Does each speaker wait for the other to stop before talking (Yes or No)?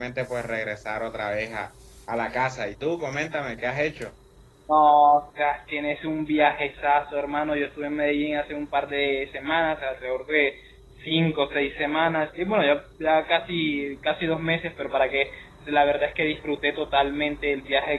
Yes